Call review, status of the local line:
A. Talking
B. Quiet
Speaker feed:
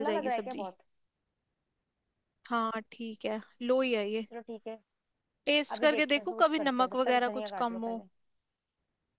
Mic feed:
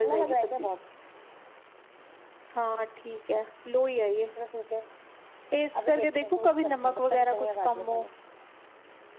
B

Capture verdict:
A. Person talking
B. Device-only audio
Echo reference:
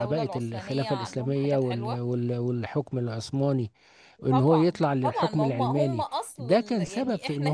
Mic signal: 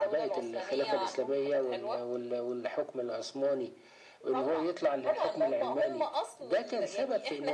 B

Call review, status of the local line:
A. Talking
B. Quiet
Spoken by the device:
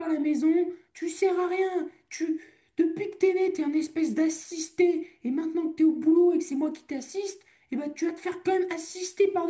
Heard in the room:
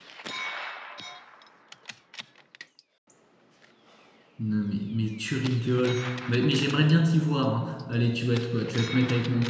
A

